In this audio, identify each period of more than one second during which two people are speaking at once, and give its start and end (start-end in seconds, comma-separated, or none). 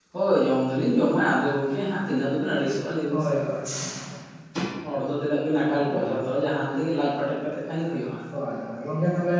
none